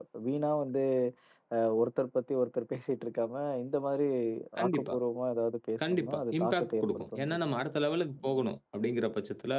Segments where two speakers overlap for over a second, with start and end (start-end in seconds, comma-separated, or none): 5.9-7.5